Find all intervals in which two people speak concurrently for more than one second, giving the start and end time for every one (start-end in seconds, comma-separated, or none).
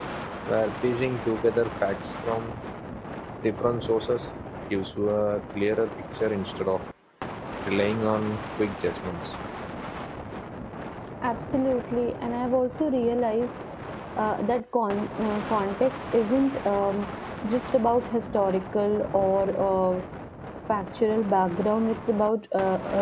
none